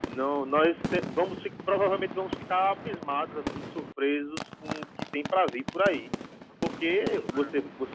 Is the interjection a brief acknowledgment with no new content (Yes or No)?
Yes